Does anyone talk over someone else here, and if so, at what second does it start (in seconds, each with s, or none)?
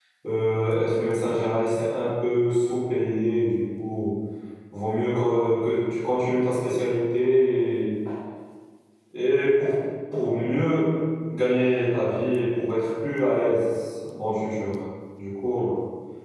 none